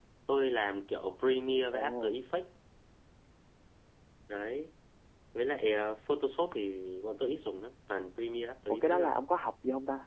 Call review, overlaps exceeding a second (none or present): none